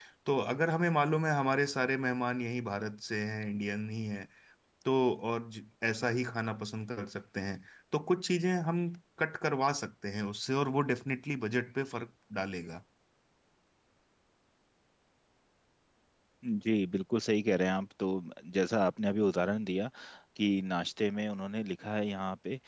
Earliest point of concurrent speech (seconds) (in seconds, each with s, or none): none